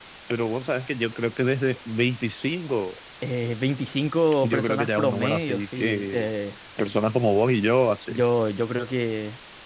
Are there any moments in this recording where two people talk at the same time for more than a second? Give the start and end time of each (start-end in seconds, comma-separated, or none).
4.4-6.3